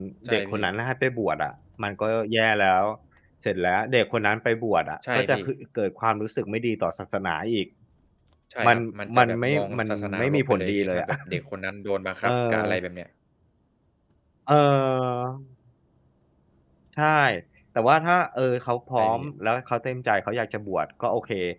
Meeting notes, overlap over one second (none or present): present